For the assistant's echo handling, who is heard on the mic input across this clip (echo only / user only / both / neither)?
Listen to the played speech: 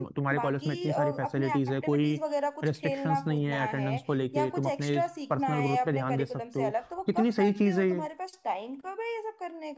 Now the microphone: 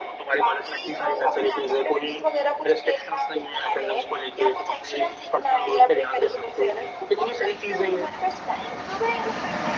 echo only